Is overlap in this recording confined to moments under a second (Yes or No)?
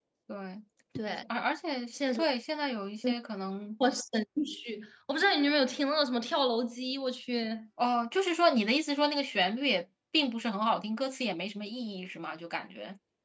Yes